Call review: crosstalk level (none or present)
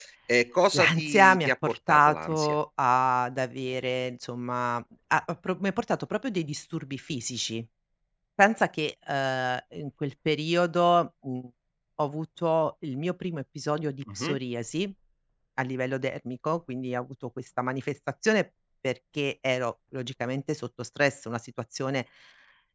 present